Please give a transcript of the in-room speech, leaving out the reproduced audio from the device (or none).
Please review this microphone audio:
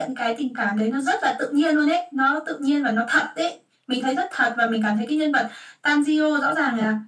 none